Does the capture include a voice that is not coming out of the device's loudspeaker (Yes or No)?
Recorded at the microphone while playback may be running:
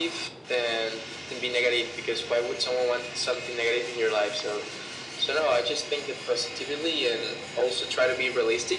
No